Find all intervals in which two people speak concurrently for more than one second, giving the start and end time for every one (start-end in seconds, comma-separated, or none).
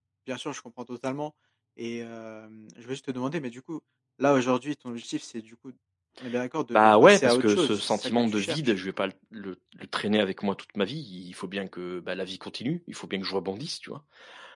6.7-8.7